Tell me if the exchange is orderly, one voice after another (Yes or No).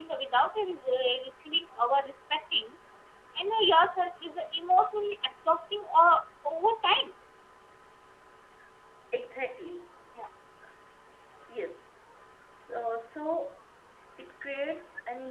Yes